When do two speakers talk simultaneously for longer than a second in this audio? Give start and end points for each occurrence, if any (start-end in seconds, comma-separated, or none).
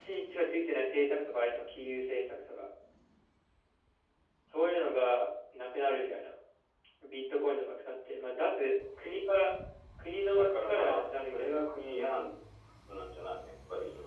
10.3-11.6